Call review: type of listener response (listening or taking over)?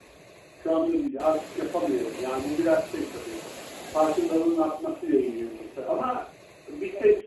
listening